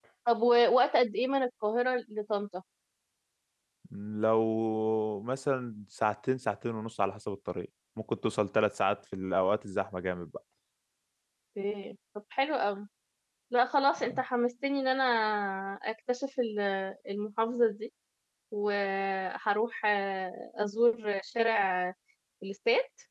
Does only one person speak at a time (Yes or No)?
Yes